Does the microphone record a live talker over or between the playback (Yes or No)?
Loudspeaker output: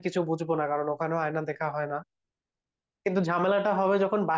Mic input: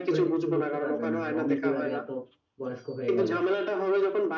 Yes